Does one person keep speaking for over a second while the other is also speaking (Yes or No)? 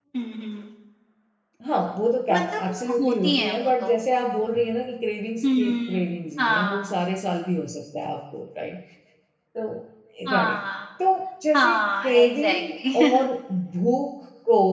Yes